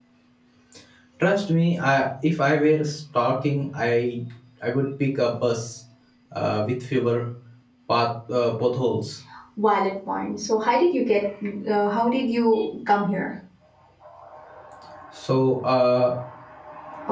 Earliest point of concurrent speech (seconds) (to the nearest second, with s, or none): none